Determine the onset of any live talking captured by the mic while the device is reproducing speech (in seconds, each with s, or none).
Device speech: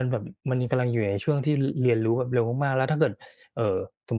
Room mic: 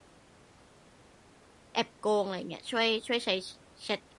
1.7 s